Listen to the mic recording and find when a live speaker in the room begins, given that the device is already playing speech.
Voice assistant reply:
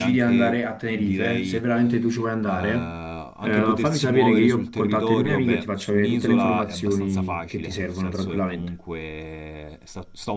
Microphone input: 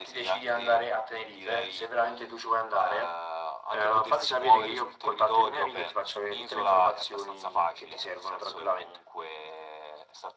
none

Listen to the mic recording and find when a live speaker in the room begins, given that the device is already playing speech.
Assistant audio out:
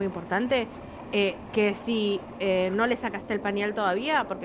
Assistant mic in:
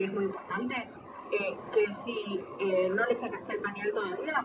none

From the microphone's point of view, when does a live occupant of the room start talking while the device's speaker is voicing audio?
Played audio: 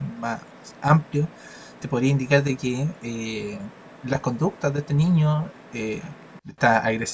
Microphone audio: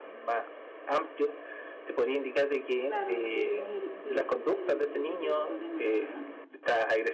2.9 s

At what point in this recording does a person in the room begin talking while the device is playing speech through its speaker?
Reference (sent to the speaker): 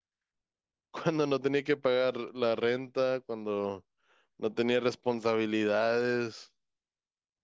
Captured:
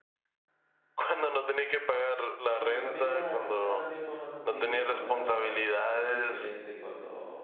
2.5 s

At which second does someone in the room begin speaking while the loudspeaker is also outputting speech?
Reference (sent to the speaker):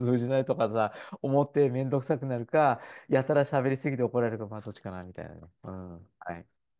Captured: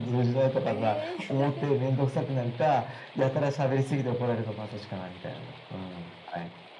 0.7 s

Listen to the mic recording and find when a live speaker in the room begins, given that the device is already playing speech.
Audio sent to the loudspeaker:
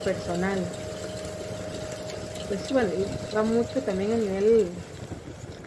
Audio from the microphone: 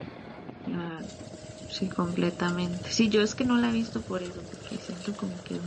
0.6 s

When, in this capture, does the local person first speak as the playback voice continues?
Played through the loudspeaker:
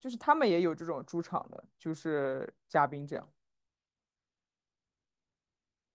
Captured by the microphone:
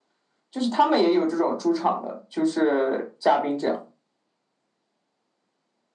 none

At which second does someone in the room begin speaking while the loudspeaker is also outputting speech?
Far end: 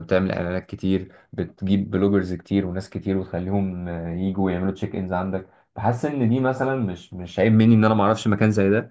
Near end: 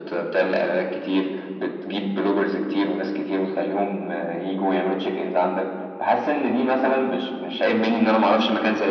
none

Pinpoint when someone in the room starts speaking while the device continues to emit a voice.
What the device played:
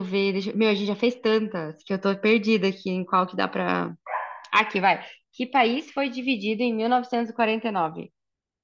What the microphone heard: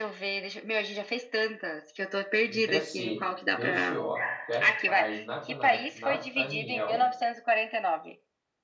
2.5 s

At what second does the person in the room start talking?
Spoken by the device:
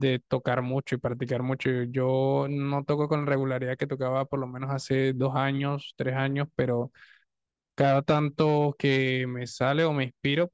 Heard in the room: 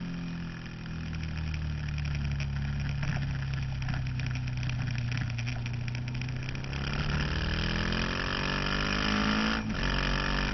none

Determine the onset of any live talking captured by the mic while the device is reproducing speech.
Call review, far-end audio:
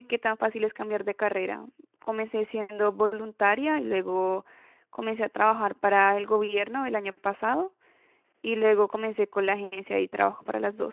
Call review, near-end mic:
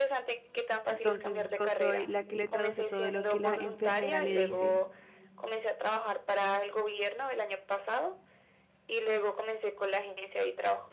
0.9 s

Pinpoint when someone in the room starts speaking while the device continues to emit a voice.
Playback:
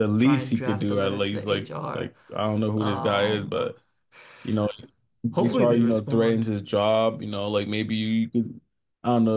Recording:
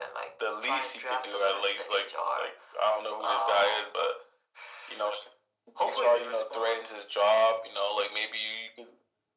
none

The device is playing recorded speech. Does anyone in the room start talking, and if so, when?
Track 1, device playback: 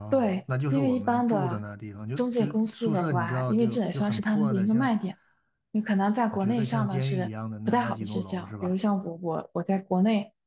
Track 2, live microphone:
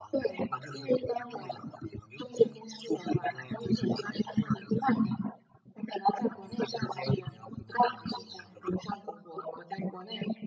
none

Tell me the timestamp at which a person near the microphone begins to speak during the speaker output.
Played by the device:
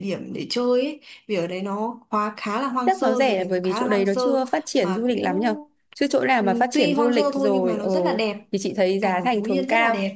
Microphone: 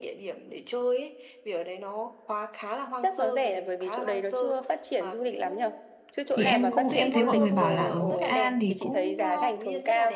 6.3 s

